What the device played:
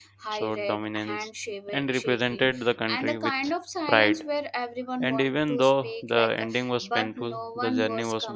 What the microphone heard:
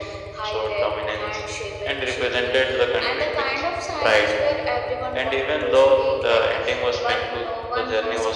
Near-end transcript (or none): none